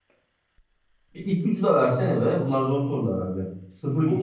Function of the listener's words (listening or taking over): taking over